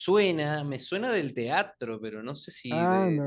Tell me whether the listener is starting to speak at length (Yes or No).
Yes